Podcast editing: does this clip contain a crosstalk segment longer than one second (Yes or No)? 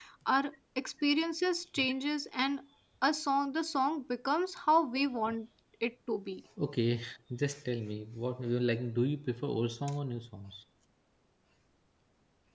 No